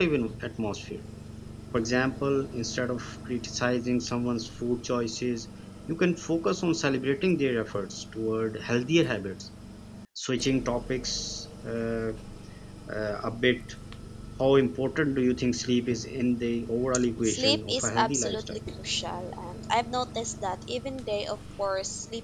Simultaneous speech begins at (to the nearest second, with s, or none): 17 s